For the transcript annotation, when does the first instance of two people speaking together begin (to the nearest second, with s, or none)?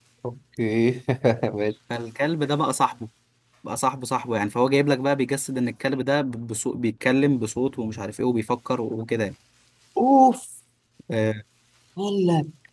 none